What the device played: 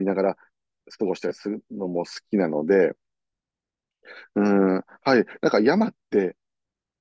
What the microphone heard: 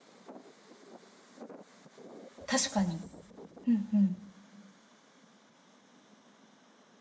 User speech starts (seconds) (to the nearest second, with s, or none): 2 s